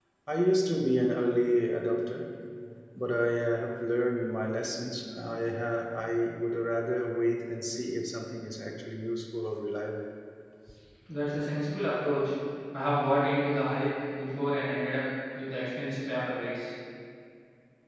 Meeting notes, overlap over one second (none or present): none